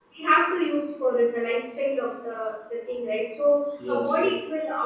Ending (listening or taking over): listening